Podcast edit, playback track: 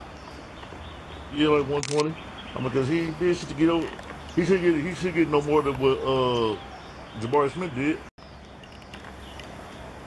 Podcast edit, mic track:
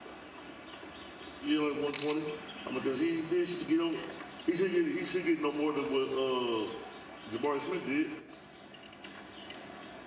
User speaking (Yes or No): No